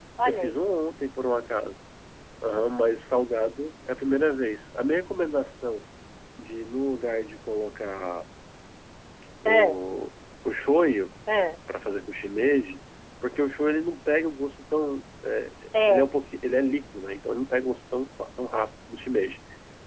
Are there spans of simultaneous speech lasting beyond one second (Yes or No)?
No